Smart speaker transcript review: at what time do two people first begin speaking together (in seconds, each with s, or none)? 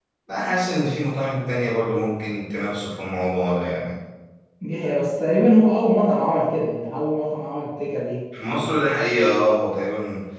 none